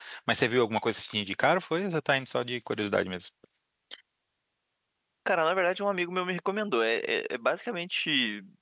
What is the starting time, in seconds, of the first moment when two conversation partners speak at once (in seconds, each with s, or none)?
none